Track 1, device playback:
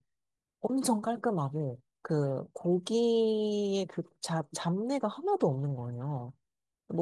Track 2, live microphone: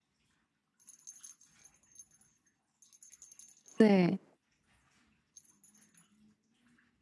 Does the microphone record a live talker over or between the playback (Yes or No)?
Yes